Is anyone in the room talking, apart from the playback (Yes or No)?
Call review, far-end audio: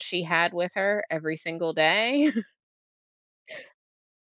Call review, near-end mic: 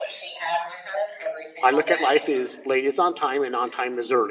Yes